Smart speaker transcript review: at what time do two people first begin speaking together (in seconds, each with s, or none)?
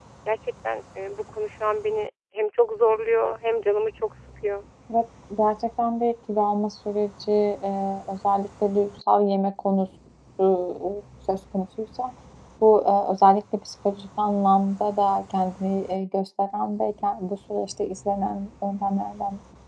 none